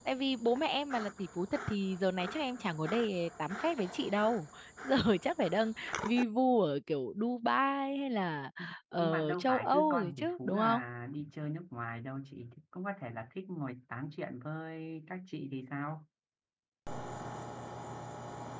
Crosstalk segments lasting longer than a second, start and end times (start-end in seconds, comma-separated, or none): 9.0-10.8